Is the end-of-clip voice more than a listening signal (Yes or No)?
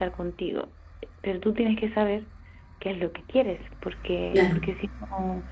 No